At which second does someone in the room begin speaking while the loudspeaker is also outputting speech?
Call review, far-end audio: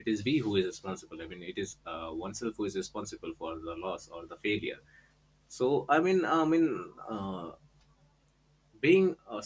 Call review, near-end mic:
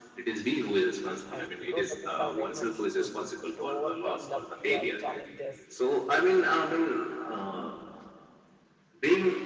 1.3 s

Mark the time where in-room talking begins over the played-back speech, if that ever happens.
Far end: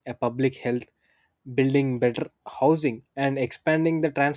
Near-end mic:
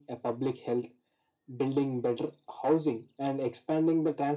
none

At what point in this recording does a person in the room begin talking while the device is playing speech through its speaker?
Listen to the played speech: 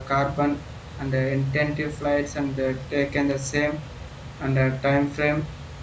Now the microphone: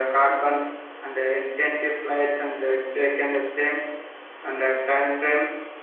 none

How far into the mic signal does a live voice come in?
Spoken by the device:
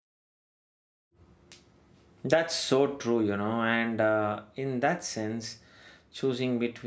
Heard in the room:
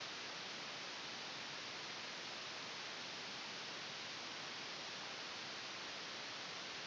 none

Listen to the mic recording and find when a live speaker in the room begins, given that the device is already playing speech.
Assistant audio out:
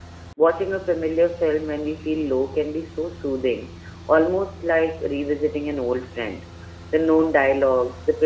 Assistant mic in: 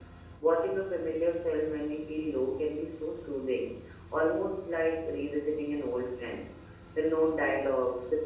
none

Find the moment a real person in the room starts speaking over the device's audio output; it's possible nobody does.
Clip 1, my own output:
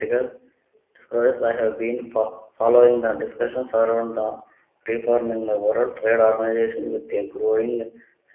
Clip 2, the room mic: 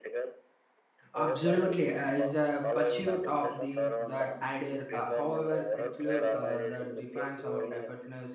1.2 s

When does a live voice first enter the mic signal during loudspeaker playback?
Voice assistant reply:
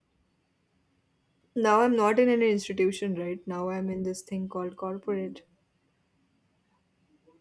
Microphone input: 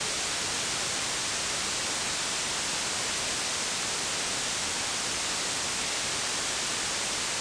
none

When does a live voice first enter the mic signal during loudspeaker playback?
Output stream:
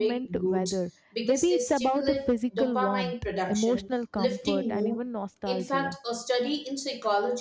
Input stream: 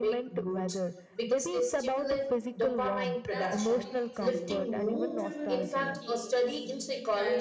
3.3 s

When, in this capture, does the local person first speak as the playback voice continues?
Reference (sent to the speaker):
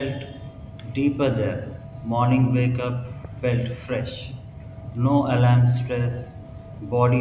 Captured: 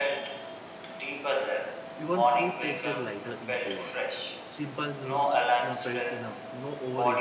2.0 s

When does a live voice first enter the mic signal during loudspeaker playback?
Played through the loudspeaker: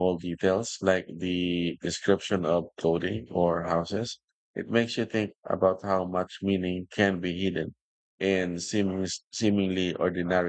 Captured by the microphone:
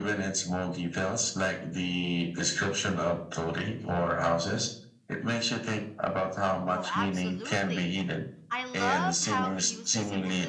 6.7 s

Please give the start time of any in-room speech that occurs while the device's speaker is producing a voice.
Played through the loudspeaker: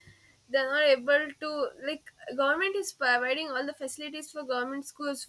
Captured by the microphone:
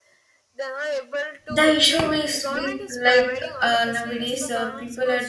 1.5 s

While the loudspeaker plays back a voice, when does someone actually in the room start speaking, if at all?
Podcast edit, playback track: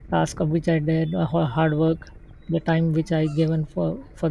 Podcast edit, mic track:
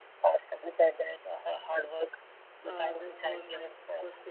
2.6 s

